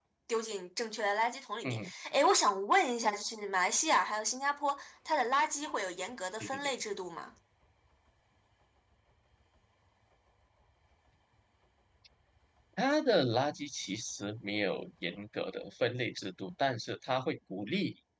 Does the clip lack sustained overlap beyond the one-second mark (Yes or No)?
Yes